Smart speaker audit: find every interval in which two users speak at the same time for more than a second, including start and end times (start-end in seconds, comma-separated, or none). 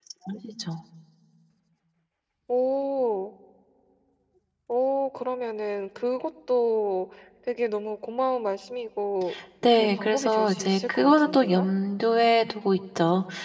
9.7-11.7